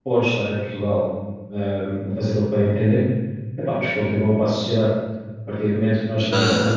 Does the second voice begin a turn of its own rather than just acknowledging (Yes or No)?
No